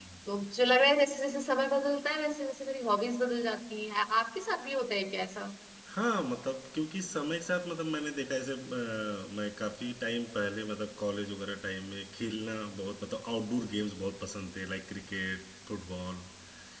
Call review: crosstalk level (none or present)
none